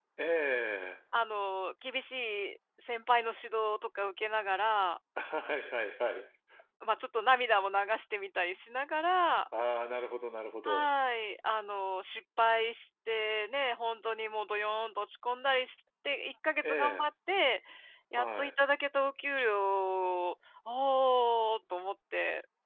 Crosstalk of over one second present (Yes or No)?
No